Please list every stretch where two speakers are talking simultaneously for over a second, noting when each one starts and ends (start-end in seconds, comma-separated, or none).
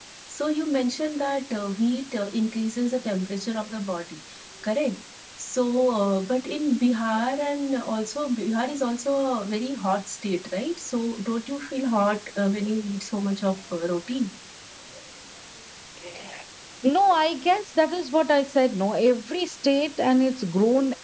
none